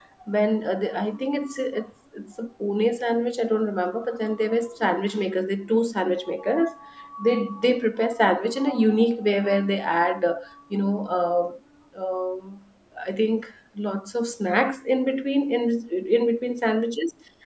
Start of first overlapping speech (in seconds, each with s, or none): none